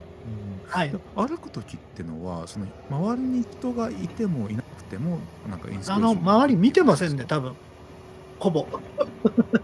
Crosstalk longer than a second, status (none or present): present